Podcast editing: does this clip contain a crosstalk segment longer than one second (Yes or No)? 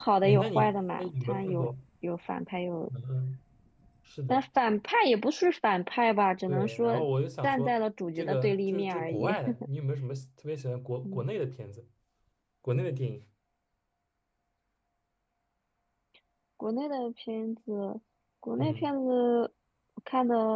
Yes